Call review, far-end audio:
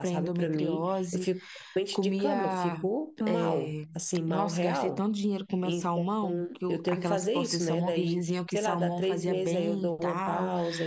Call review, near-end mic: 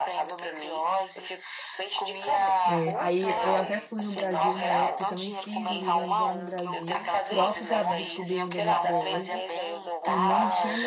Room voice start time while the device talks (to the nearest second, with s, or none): 3 s